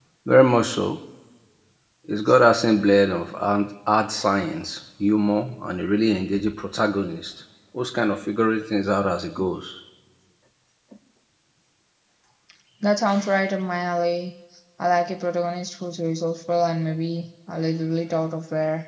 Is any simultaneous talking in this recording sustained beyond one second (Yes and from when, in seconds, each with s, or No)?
No